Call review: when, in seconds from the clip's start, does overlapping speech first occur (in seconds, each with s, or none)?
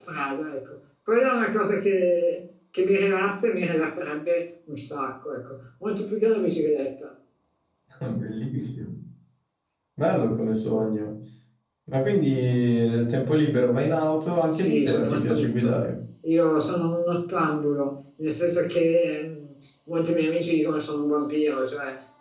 14.5 s